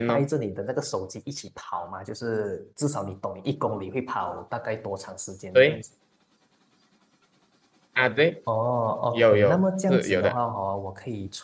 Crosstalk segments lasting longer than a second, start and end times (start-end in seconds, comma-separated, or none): 9.1-10.4